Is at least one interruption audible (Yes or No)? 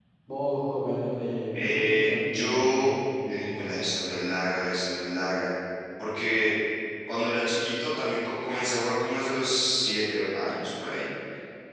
Yes